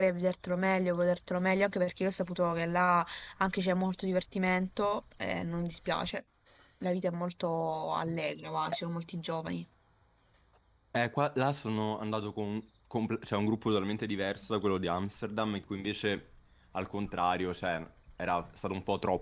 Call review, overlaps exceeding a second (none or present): none